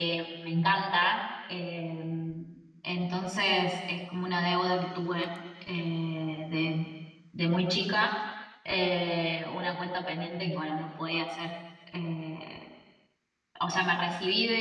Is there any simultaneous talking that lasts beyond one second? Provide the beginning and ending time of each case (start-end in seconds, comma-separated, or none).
none